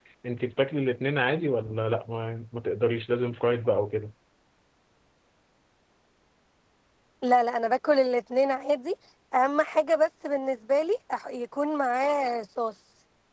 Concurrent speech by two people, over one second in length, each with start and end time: none

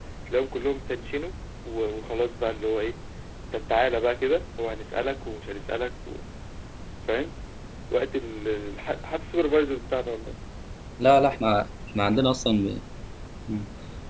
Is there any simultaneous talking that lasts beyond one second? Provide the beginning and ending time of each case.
none

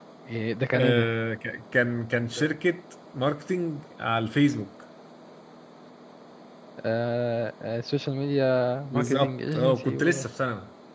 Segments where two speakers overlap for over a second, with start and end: 8.9-10.2

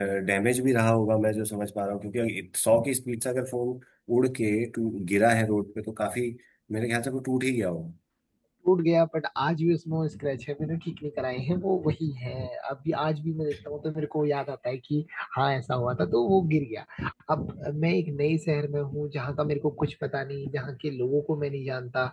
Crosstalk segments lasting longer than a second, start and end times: none

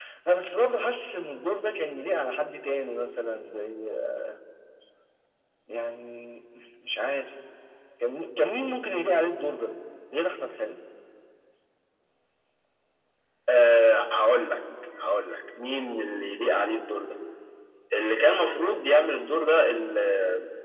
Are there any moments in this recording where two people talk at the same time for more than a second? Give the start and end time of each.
none

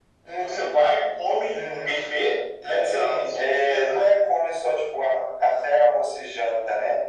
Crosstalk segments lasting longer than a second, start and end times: 2.6-4.1

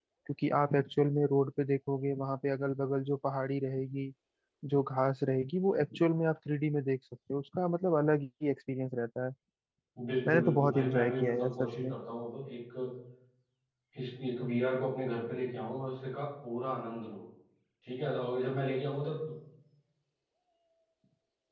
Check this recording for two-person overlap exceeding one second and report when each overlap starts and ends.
10.3-11.9

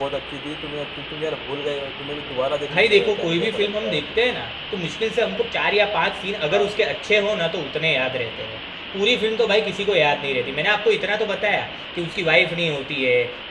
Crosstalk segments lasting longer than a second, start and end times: 2.7-4.2

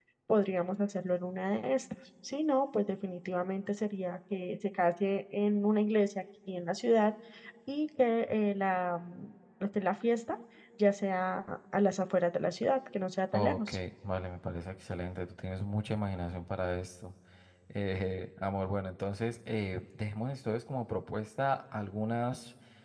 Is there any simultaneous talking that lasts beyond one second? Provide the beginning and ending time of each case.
none

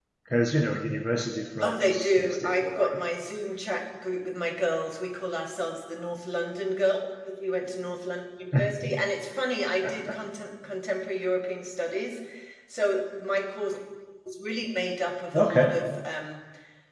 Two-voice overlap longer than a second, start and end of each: 1.6-3.0

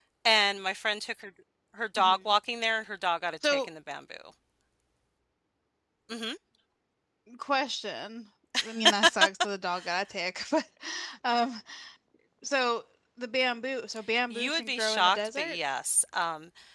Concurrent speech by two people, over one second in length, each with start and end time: 14.3-15.6

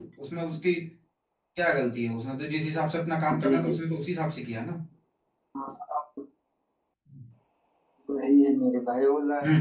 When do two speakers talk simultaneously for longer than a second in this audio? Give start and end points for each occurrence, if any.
none

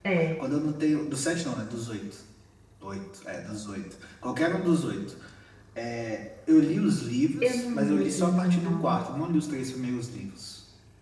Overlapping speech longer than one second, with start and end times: 7.4-9.0

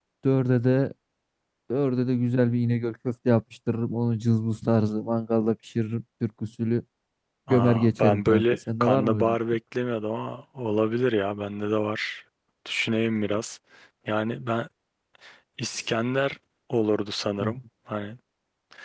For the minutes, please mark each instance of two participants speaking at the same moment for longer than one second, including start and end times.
7.5-9.4

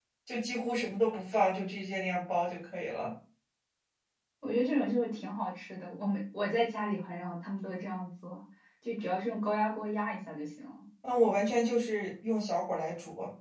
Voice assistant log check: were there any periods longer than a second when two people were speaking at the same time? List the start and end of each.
none

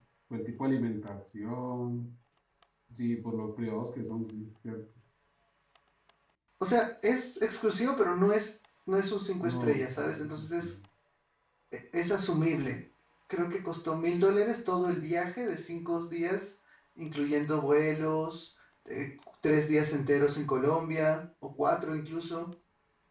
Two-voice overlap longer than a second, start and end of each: 9.4-10.7

